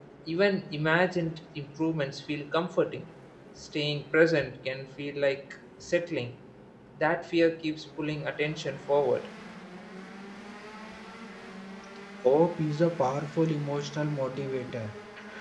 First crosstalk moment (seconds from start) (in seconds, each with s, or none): none